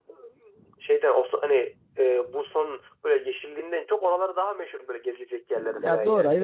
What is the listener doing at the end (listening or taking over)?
taking over